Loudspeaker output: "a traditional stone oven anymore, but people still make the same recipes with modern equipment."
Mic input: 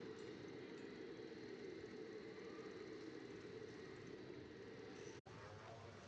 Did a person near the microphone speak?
No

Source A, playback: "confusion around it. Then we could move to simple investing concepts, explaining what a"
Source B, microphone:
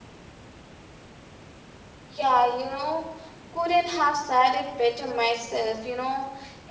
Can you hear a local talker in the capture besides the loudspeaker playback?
Yes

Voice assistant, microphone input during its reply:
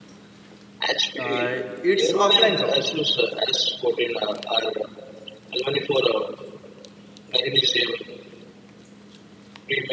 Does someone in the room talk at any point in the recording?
Yes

